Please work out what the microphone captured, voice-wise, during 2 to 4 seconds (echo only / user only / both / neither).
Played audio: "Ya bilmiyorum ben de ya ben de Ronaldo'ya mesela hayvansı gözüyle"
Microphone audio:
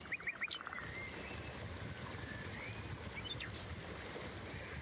neither